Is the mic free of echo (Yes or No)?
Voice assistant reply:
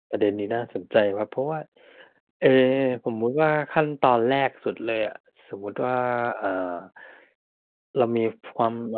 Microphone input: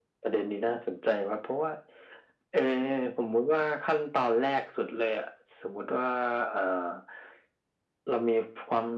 No